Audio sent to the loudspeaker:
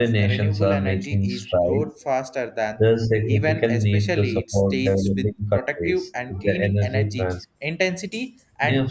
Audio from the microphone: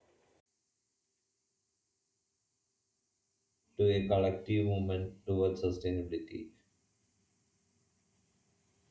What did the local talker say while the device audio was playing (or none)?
to a collective movement towards sustainability.